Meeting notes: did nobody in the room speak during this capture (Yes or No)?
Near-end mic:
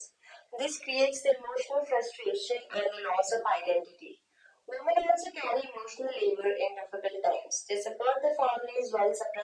Yes